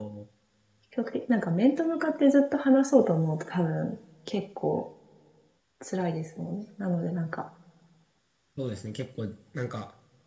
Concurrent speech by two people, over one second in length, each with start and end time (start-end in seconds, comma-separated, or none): none